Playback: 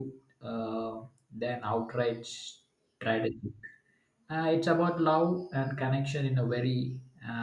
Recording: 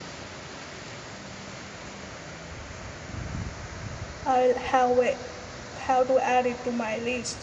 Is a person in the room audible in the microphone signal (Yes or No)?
Yes